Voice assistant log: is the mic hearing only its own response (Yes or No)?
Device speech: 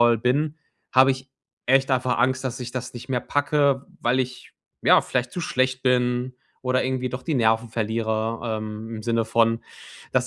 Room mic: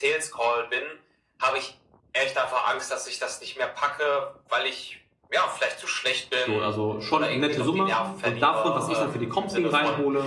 No